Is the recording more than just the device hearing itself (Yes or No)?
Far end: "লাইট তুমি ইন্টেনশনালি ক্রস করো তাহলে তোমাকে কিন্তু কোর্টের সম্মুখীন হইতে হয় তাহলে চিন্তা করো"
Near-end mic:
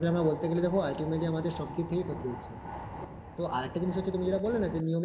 Yes